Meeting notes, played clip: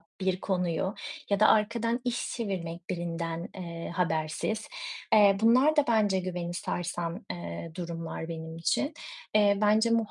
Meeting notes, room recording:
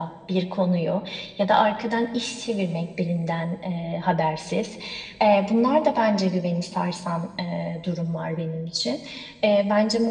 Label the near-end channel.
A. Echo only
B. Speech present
A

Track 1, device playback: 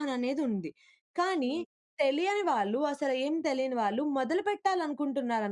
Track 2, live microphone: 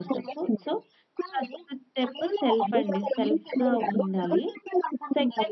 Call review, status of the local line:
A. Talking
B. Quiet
A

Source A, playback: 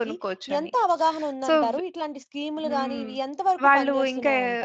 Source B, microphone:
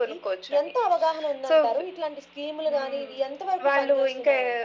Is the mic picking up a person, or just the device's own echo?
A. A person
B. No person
B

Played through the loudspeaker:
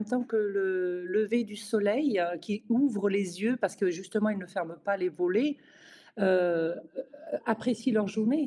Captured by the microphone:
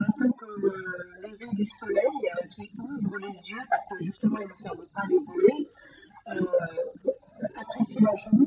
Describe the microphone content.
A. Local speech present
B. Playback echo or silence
B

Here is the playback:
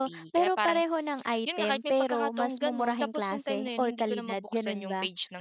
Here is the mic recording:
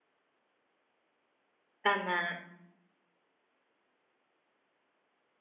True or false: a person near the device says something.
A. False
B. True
B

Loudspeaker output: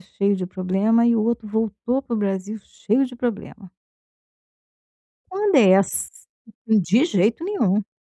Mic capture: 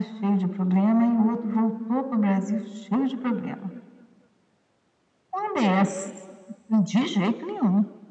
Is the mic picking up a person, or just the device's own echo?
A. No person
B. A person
A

